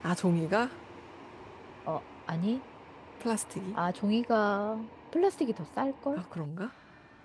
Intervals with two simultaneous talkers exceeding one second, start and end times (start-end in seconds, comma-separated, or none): none